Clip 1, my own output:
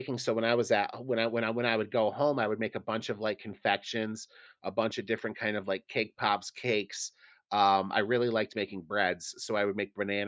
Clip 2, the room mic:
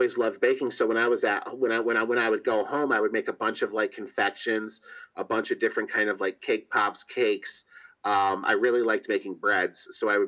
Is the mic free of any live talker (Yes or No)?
Yes